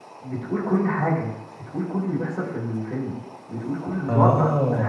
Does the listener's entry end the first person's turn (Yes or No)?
Yes